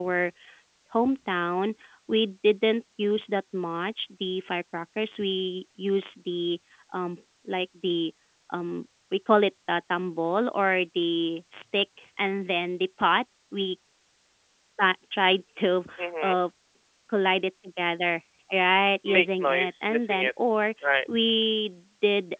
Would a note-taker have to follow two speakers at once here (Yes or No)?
Yes